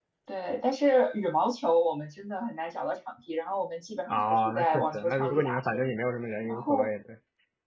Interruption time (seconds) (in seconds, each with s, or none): 4.1 s